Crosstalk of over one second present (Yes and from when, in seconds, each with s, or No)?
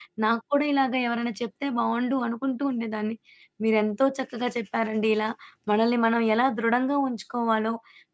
No